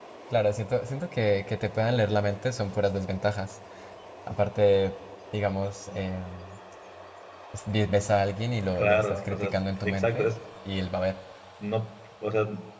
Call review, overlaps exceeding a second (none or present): present